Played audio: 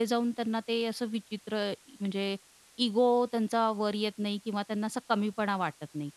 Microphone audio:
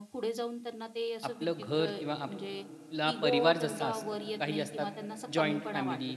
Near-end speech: present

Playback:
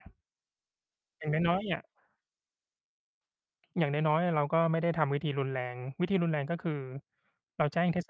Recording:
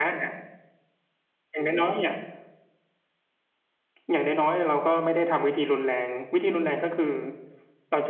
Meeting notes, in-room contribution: none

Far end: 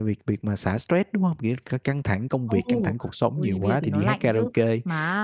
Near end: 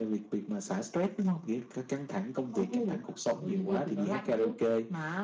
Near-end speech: none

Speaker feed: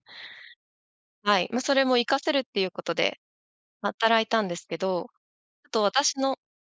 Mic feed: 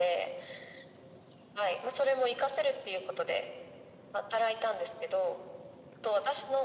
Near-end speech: none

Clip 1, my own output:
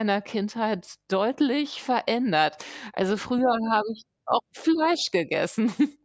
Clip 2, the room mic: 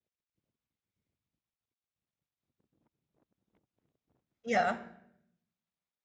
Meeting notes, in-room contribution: present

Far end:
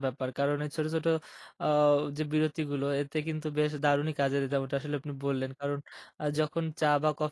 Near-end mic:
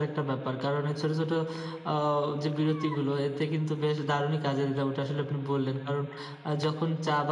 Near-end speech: none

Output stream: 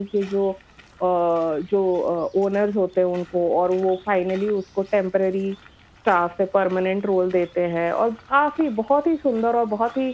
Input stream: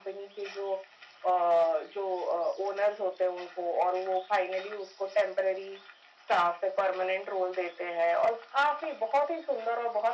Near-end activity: none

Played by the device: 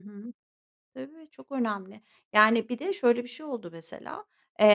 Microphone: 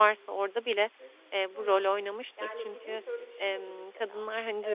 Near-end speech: present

